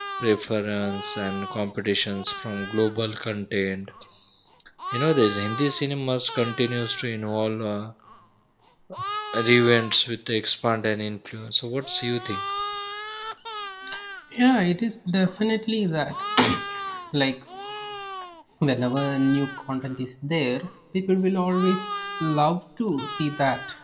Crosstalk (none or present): none